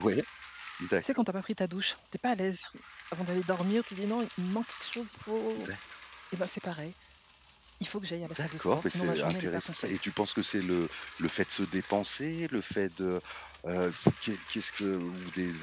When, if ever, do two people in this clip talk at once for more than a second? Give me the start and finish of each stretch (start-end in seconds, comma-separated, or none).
8.3-9.9